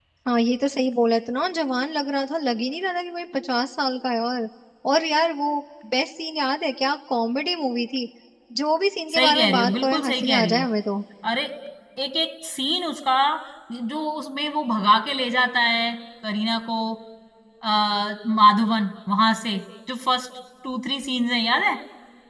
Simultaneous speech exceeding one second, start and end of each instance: 9.1-10.7

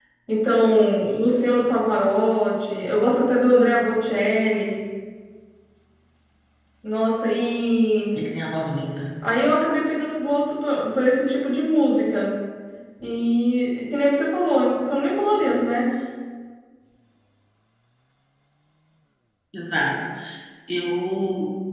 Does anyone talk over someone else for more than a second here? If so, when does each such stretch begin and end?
none

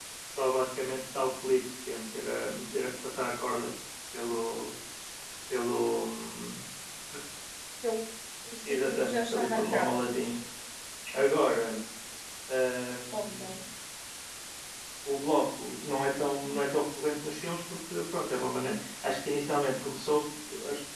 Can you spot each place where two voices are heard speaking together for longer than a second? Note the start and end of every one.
8.7-9.9

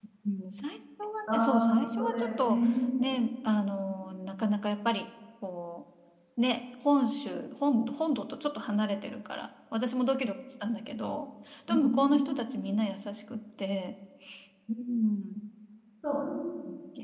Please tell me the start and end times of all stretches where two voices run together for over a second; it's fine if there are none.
1.3-2.6

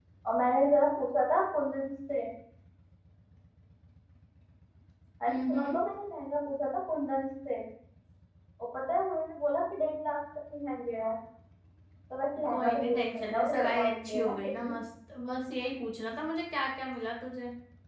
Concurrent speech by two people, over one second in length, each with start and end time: 12.5-14.7

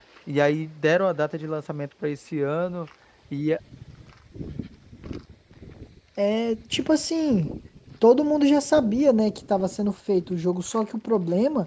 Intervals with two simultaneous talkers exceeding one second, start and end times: none

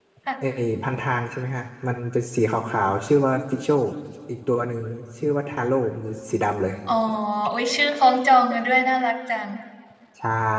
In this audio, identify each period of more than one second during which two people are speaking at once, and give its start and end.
none

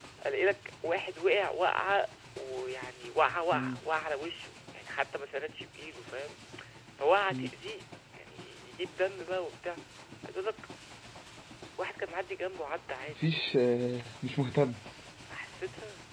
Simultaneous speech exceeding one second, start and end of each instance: none

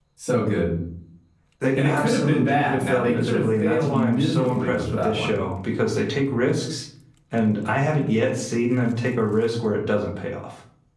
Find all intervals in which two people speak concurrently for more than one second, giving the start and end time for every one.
1.8-5.4

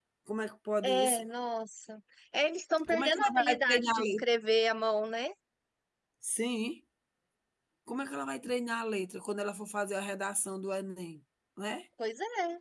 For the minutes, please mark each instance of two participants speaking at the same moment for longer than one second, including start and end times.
2.9-4.2

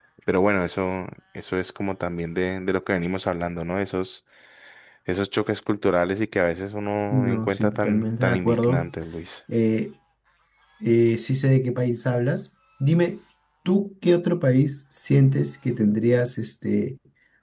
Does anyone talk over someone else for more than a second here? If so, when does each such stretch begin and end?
7.1-8.9

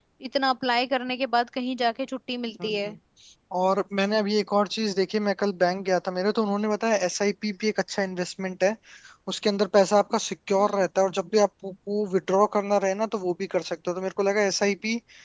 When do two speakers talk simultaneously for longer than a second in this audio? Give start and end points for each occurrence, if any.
none

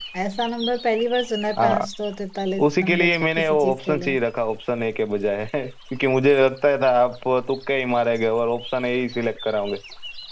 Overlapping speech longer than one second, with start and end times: 2.8-4.2

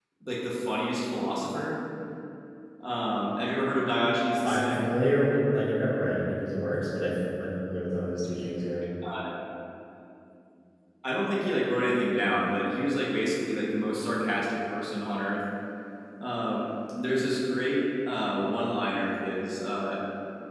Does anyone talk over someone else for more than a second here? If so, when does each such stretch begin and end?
none

